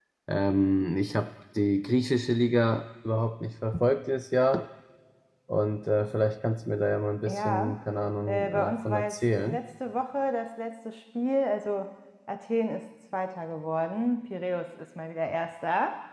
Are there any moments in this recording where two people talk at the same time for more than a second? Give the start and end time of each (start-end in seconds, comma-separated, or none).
8.3-9.6